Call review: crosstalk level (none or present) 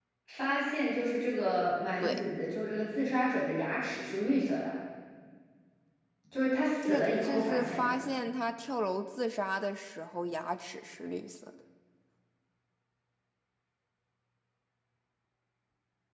present